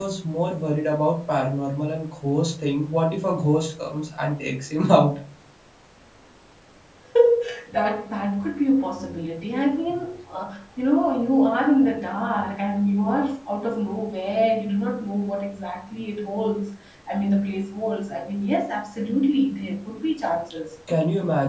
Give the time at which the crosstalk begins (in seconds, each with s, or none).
none